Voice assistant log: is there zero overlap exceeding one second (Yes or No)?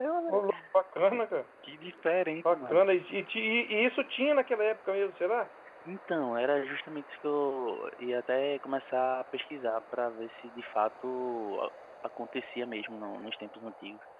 Yes